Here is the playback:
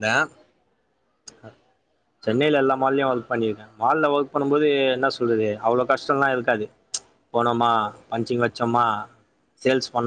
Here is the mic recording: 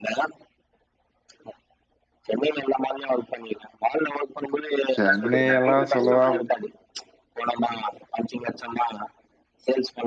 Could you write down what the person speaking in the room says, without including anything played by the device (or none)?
சென்னை எல்லா சொல்லவா